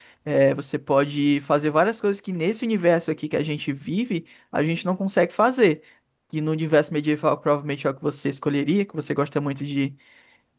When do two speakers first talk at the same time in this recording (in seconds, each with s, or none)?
none